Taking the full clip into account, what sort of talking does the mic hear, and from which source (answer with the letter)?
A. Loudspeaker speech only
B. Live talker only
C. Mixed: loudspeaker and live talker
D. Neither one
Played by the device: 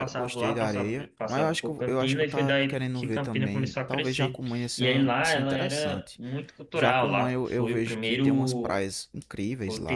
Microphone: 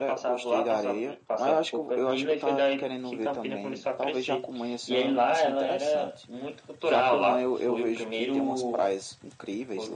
A